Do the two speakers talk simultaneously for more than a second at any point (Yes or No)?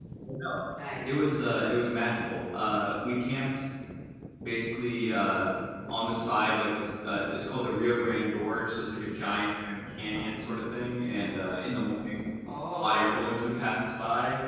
No